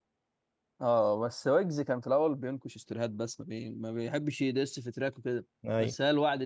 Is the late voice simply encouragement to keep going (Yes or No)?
Yes